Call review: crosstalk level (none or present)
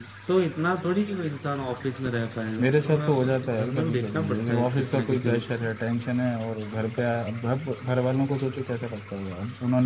present